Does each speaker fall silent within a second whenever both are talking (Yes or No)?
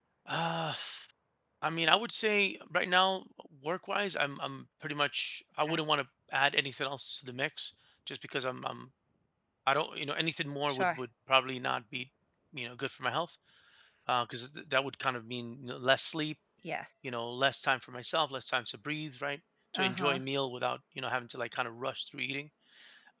Yes